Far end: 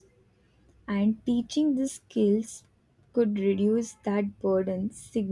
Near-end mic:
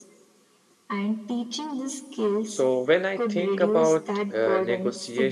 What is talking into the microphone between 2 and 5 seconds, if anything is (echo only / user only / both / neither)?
both